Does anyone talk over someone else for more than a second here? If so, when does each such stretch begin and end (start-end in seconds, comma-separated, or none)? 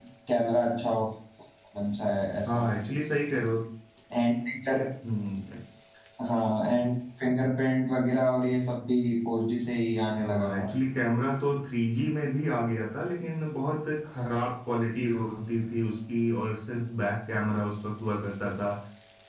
none